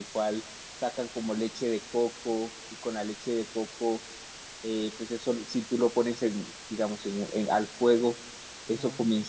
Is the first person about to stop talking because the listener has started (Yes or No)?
No